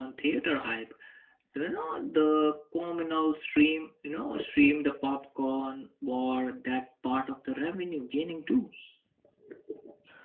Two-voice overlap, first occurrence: none

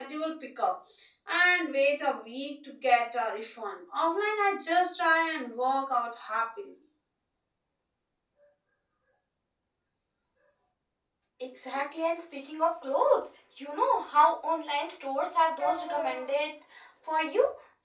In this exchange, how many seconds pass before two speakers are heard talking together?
none

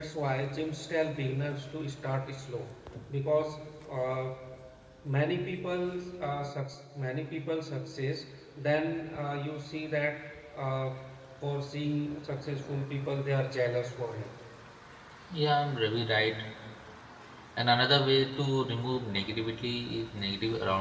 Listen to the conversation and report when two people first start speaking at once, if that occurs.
none

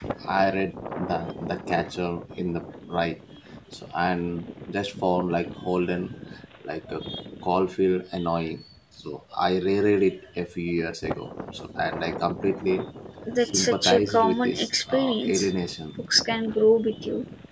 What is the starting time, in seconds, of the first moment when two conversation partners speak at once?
13 s

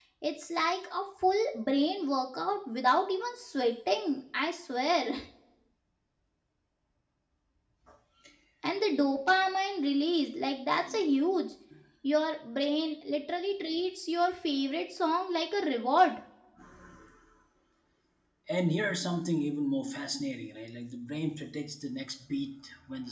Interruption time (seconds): none

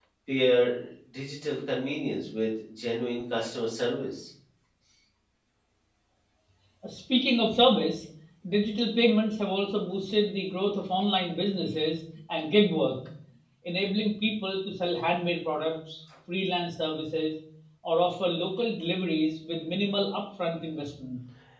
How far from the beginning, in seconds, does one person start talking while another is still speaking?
none

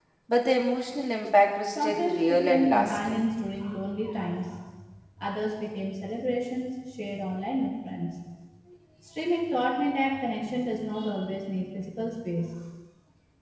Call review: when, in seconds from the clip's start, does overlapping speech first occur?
2 s

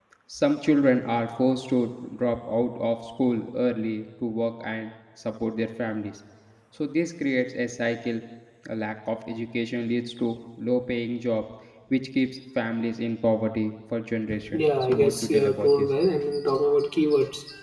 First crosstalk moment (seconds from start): 14 s

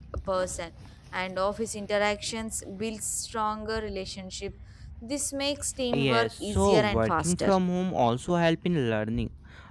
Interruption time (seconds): 6 s

